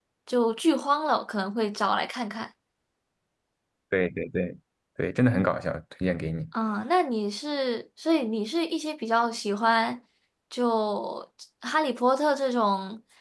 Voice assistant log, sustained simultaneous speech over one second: none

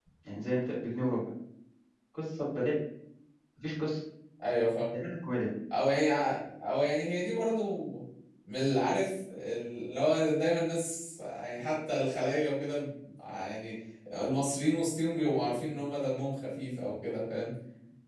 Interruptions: none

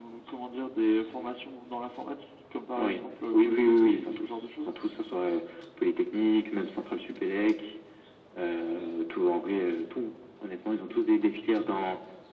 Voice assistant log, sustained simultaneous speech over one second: present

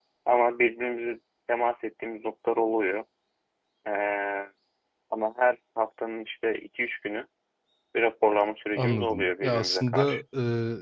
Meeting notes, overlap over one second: present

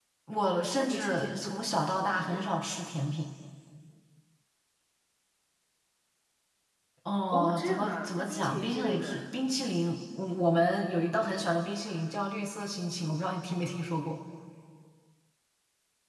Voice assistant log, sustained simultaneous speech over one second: present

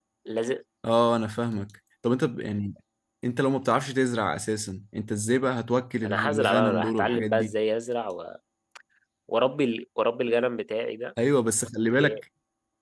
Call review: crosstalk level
present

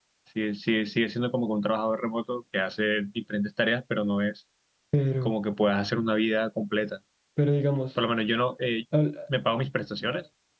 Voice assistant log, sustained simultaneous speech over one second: none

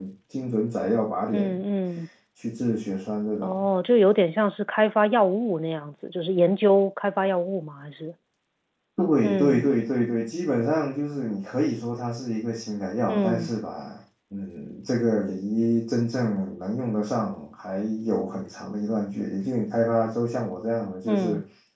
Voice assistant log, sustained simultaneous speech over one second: none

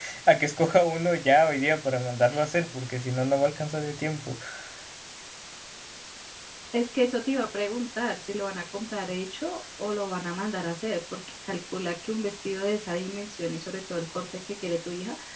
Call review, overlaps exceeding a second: none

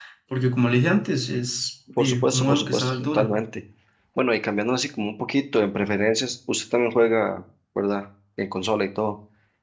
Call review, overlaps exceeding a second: present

